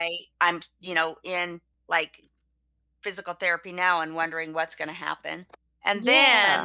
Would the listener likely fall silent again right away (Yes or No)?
Yes